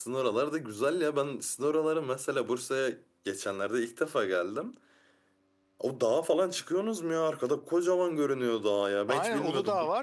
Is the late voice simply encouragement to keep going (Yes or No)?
No